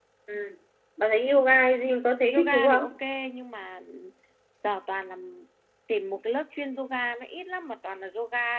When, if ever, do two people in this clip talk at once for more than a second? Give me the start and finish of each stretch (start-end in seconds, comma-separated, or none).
none